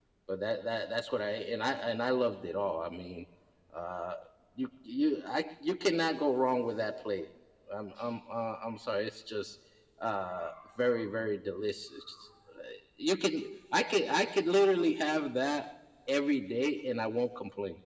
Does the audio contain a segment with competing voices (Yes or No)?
No